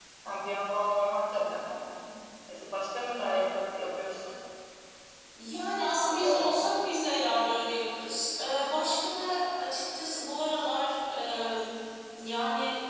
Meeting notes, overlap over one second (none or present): none